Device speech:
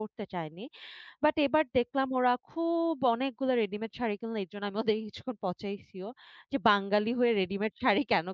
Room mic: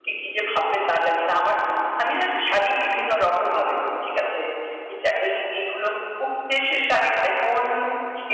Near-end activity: present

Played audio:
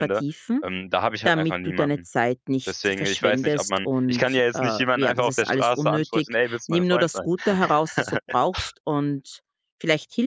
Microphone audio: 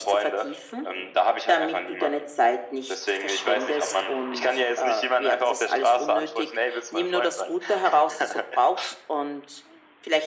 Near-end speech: none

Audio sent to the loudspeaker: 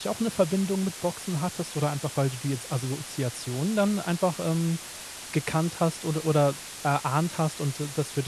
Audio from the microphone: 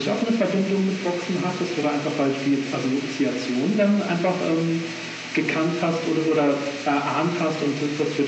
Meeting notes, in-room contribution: none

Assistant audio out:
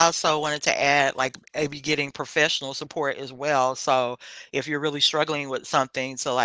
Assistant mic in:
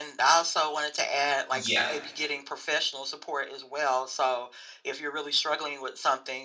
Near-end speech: present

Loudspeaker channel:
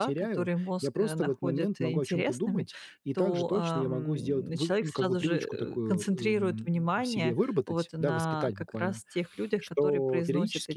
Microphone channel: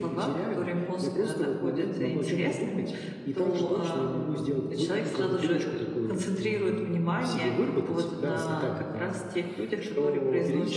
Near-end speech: none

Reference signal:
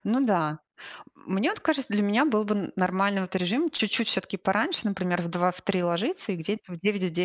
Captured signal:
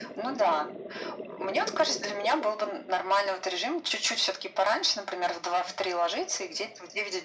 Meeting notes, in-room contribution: none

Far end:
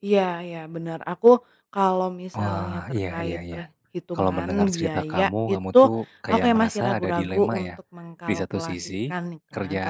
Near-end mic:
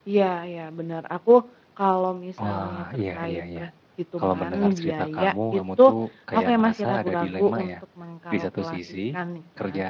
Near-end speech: none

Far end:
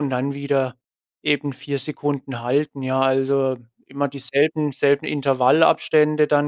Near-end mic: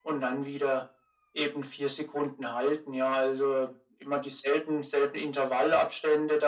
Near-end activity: none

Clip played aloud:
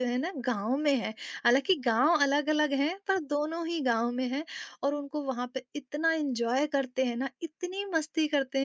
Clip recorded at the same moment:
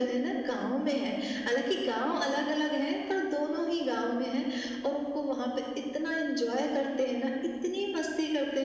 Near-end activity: none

